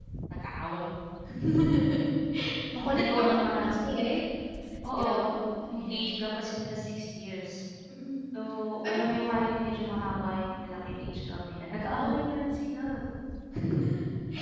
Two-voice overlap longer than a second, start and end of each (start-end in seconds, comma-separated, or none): 2.8-4.1